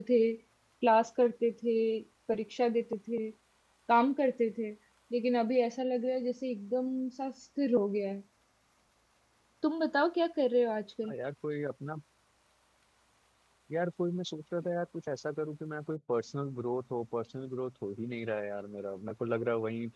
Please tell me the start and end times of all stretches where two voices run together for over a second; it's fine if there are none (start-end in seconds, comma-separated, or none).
none